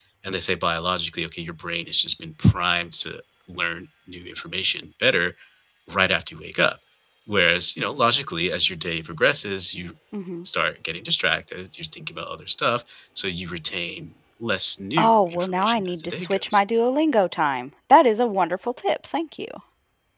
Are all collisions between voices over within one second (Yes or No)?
No